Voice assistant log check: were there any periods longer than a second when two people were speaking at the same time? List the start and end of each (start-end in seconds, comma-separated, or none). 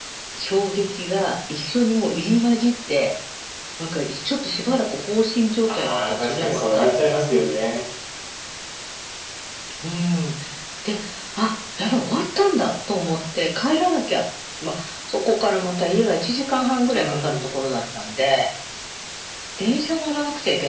5.7-7.0